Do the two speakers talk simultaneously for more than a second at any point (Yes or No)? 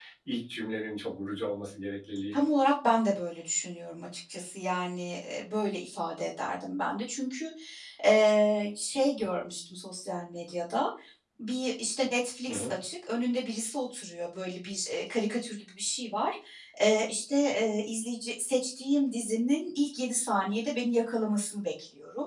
No